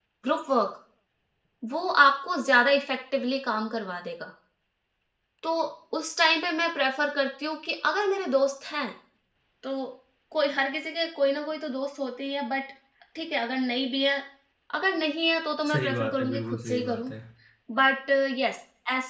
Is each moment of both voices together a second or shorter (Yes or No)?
No